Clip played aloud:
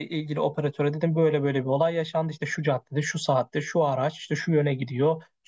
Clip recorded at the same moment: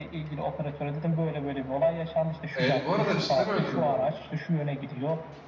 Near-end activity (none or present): present